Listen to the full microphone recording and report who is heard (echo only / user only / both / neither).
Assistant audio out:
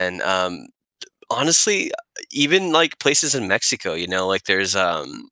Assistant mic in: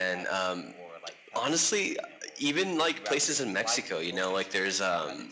both